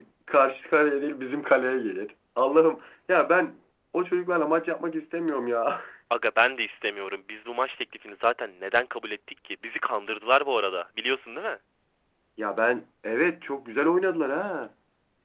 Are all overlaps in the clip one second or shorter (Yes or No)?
Yes